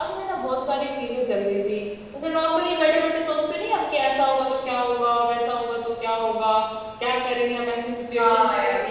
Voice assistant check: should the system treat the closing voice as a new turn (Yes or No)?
Yes